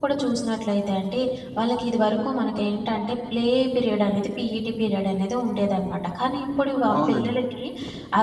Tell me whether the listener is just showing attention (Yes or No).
Yes